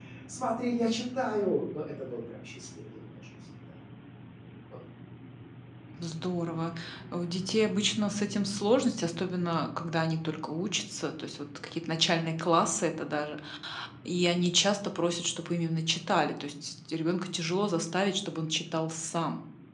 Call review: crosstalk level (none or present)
none